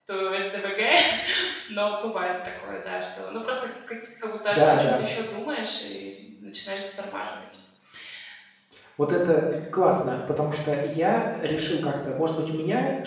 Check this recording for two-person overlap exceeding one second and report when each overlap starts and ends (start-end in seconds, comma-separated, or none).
none